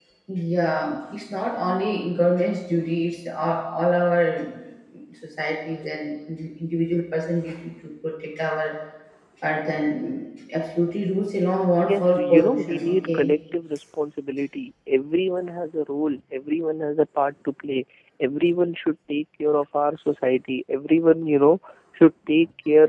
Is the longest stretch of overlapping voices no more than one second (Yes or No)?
No